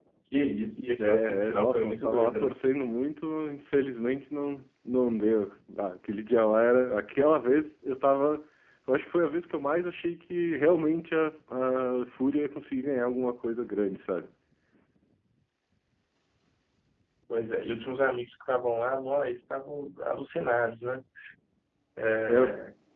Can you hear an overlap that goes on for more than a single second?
Yes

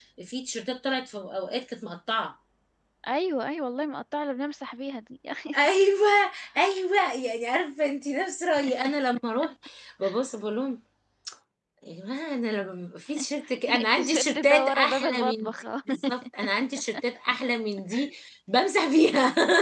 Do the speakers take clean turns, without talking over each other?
No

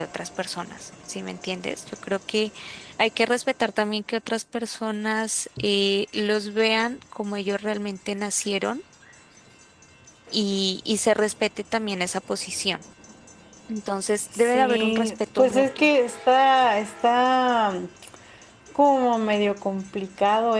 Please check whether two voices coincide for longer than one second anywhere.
Yes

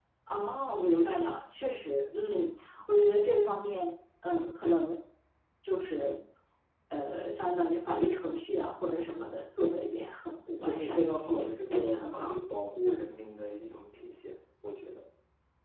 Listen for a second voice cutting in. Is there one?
Yes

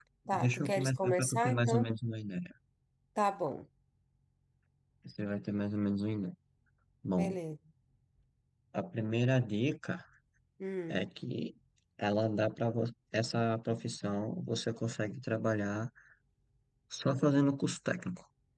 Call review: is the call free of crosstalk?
No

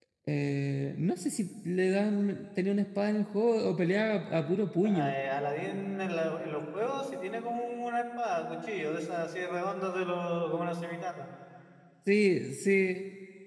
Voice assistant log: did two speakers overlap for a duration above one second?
No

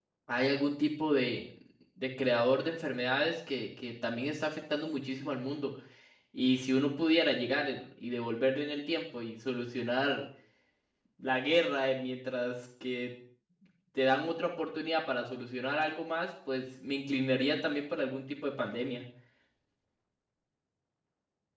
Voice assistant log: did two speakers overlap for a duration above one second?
No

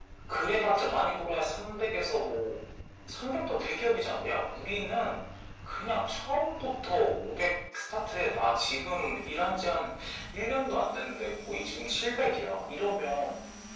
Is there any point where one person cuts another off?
No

